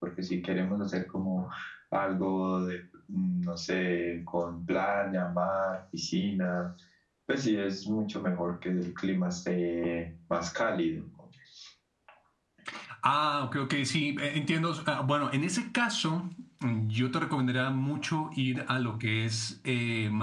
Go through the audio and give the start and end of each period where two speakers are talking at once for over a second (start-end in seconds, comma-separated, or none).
none